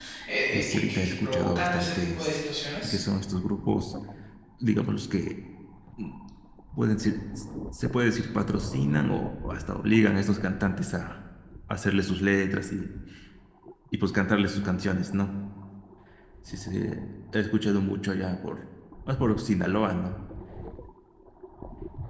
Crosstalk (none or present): present